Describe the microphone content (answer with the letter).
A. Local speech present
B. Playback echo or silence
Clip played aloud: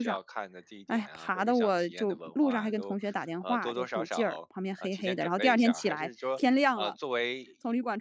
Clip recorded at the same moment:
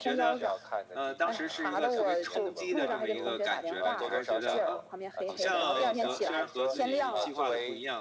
A